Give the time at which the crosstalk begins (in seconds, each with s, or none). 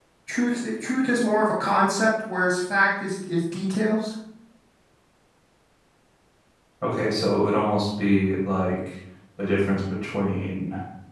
none